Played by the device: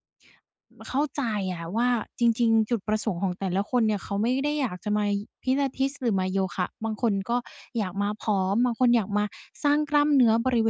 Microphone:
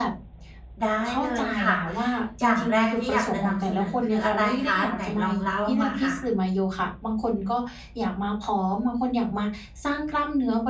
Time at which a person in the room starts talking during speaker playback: 1 s

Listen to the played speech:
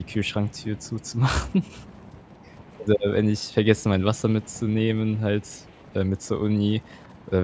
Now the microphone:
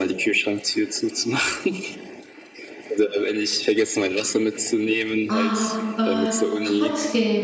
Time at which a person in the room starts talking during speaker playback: 5 s

